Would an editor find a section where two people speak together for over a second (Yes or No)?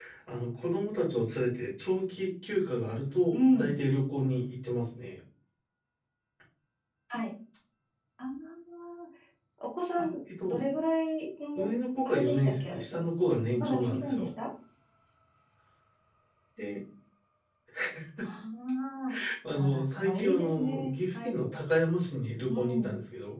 Yes